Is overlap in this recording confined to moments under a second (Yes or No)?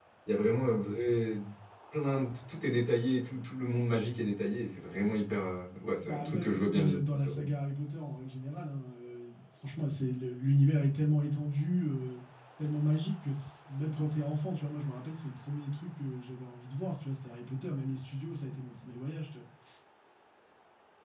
No